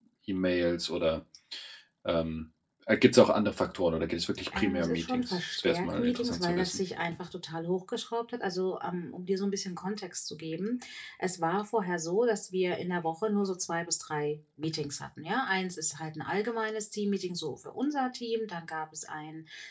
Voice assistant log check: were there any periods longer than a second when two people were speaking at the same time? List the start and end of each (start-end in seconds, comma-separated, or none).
4.6-6.8